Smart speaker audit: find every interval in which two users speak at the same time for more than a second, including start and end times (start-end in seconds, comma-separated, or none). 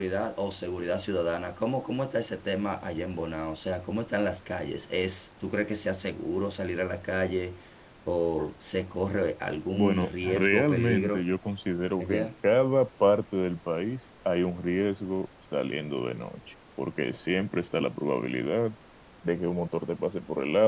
9.7-11.2